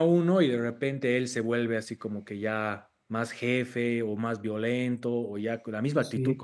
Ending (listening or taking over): listening